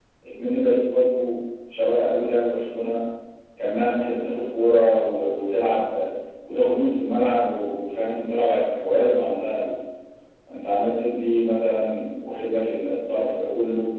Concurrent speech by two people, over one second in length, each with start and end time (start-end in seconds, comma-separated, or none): none